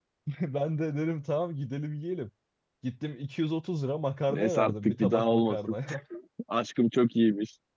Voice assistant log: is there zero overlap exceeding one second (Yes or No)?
No